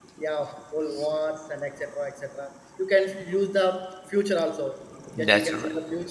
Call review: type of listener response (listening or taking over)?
listening